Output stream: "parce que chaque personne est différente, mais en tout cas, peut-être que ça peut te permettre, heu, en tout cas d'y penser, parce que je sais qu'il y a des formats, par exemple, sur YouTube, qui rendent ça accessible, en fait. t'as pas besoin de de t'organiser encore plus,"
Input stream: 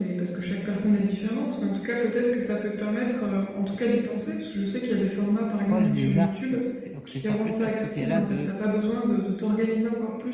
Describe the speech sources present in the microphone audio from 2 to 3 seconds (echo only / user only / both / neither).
echo only